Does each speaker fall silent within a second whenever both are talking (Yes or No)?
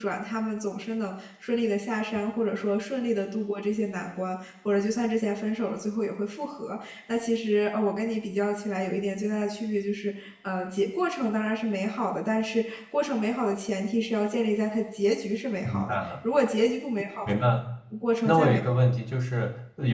Yes